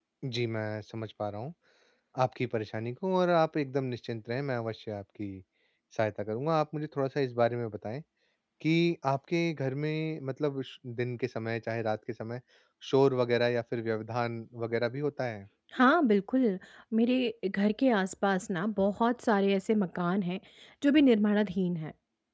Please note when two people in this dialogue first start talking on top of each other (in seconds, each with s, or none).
none